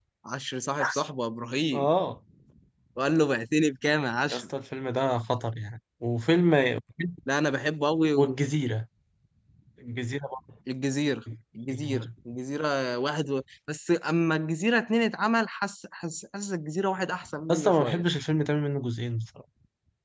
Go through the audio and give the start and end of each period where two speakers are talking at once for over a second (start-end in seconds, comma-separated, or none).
none